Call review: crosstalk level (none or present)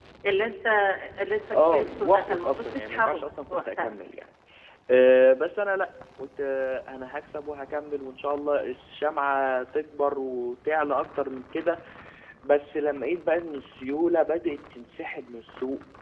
present